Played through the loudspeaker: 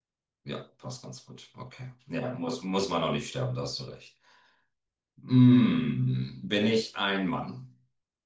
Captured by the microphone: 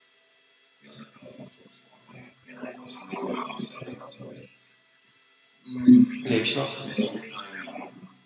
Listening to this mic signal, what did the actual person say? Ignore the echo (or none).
Lebe ich noch?